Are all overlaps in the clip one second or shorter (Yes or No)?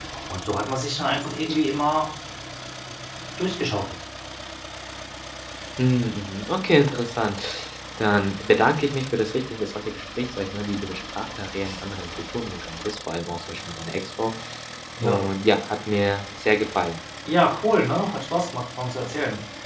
Yes